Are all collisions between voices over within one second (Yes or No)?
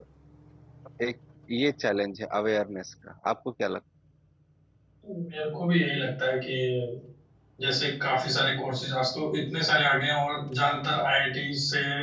Yes